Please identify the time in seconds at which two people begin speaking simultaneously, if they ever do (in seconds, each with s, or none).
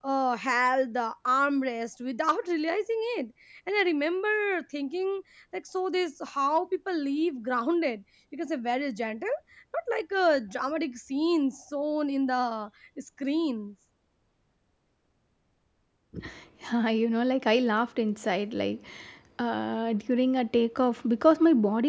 none